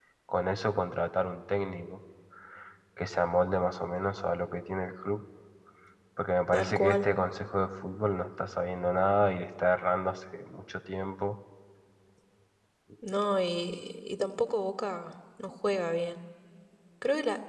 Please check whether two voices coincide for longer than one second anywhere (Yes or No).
No